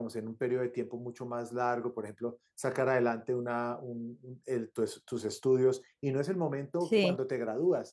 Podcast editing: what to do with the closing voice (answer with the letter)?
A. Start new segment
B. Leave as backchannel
B